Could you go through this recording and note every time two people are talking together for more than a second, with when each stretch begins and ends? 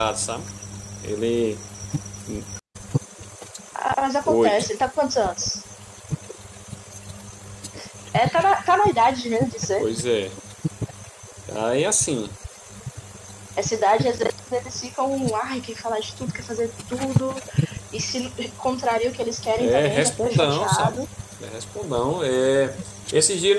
19.6-21.0

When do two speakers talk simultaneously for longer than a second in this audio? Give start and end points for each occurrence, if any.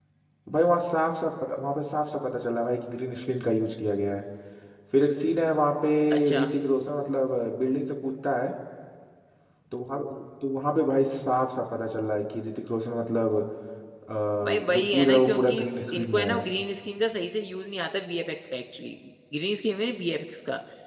14.4-16.4

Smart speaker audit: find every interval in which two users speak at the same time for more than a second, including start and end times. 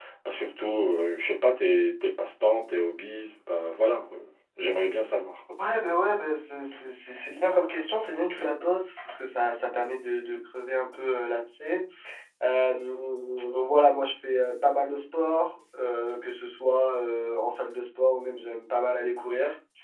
none

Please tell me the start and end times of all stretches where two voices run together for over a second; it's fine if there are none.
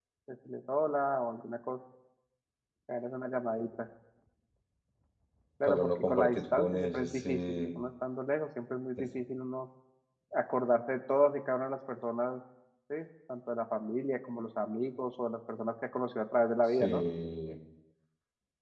5.6-7.8

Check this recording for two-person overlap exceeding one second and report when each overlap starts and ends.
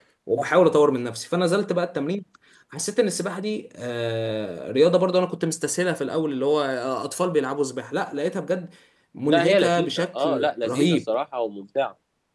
9.2-11.0

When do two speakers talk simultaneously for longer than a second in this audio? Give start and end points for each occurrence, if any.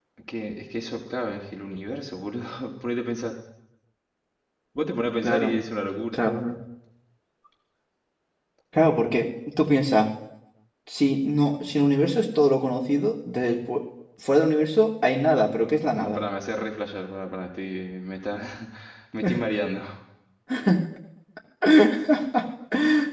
none

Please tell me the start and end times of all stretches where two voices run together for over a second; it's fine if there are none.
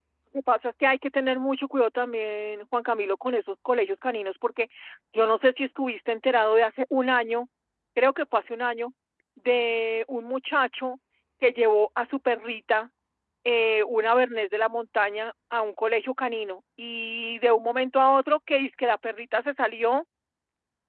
none

